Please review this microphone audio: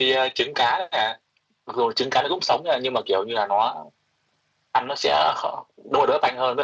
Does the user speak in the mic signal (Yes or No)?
No